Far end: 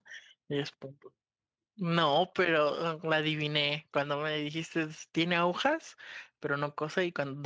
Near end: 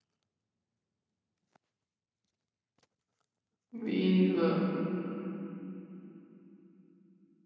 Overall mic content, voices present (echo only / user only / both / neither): user only